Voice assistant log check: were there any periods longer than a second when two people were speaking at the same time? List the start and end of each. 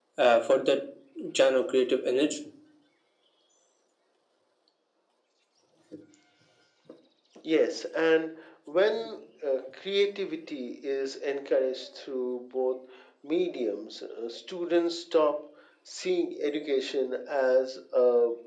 none

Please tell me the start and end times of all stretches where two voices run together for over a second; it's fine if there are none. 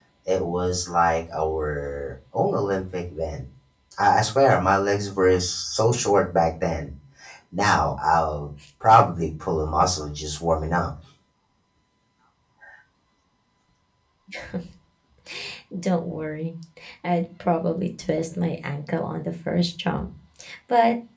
none

